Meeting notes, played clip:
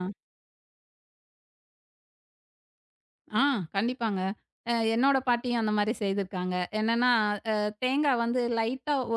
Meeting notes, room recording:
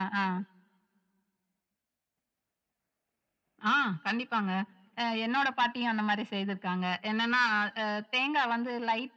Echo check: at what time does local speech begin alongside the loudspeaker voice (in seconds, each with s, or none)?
none